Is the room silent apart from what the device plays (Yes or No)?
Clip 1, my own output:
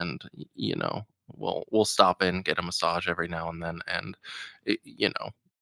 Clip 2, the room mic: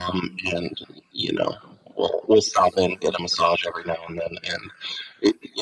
Yes